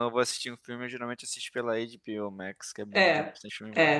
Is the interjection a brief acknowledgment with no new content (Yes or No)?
No